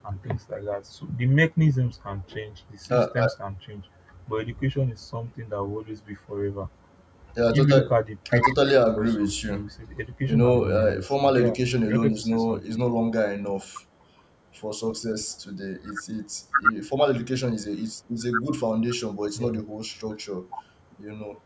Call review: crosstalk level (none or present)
present